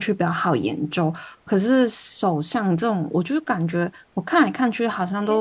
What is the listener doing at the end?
listening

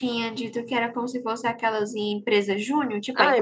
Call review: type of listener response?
taking over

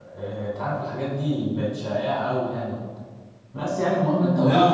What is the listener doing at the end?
taking over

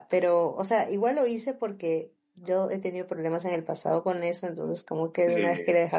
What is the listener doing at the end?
listening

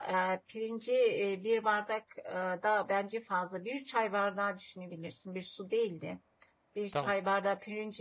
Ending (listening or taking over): listening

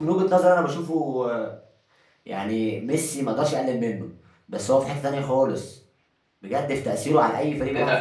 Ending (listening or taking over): taking over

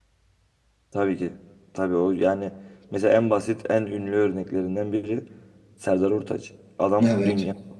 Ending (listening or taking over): listening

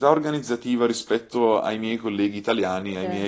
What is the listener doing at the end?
listening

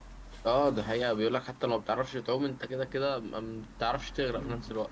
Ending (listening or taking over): taking over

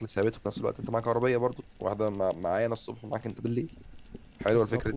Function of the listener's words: taking over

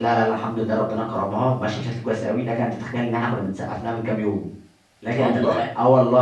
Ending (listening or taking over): listening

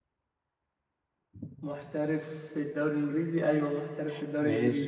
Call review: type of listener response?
taking over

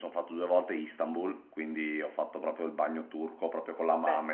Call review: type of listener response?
listening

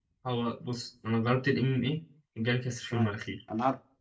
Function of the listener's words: taking over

